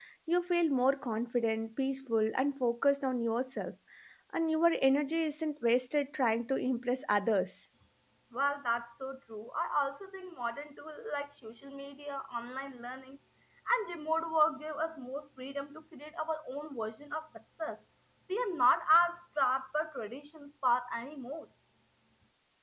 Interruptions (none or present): none